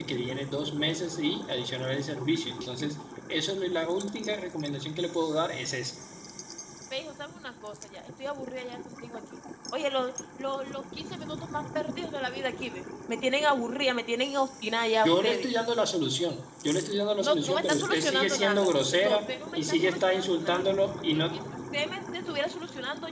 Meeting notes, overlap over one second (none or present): present